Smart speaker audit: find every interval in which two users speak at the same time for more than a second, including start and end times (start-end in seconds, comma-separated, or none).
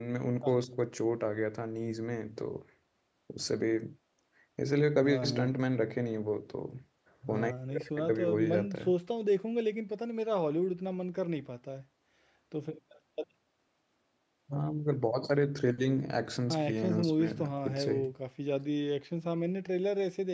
7.3-8.9, 16.5-17.9